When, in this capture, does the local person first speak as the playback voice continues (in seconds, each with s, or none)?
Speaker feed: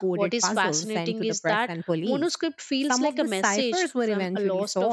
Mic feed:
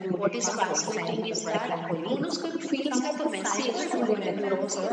3.7 s